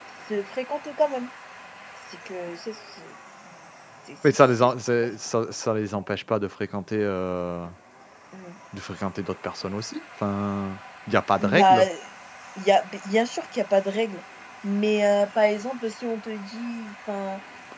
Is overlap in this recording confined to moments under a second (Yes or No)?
Yes